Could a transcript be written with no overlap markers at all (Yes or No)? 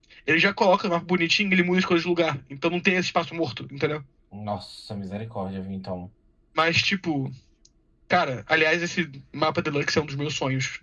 Yes